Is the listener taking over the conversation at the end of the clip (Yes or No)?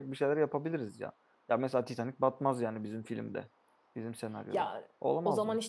Yes